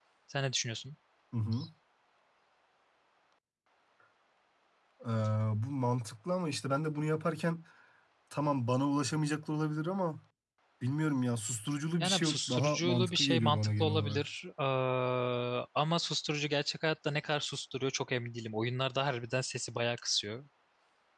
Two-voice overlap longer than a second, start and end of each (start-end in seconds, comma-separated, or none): 12.0-14.3